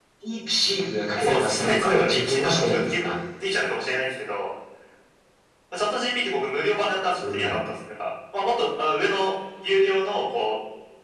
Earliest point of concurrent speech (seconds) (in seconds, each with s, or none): 1.2 s